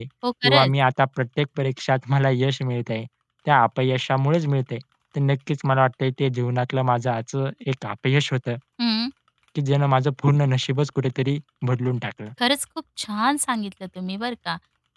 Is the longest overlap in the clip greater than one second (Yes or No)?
No